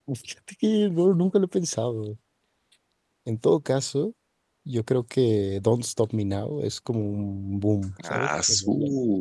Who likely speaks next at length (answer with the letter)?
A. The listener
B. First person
A